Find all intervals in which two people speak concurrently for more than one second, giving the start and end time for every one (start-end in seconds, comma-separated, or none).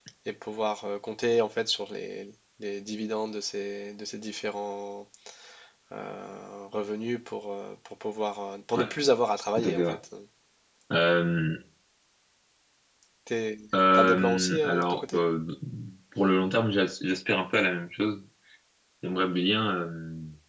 13.9-15.2